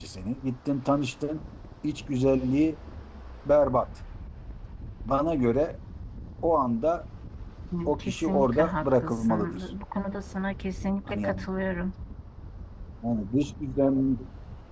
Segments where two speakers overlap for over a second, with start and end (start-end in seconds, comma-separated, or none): 7.8-9.6